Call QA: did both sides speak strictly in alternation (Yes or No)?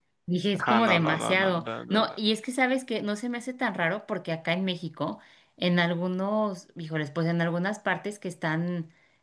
No